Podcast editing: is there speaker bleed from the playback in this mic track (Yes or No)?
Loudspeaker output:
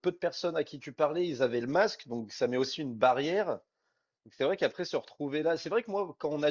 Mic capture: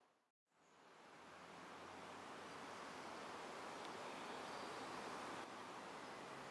No